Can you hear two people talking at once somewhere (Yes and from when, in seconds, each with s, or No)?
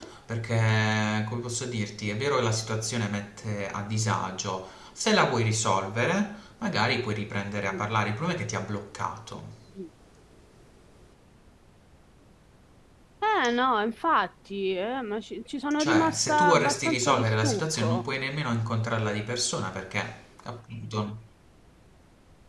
Yes, from 15.8 s